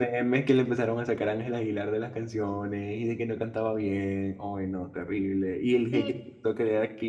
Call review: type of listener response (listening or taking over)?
listening